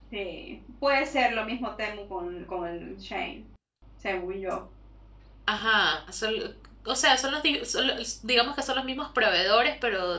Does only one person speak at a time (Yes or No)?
Yes